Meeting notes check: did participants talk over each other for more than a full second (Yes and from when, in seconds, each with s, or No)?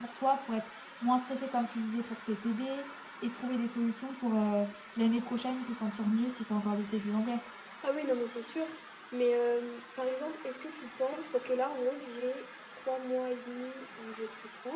No